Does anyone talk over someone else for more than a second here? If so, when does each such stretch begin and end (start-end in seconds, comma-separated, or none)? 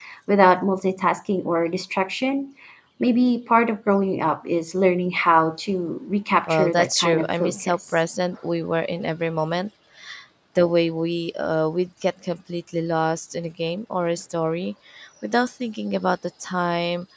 6.5-7.8